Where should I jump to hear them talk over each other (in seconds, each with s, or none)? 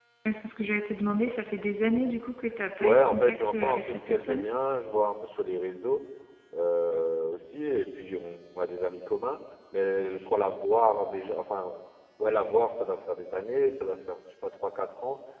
2.8 s